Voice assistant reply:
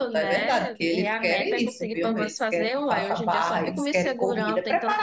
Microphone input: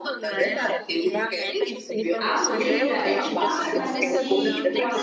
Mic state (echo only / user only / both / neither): both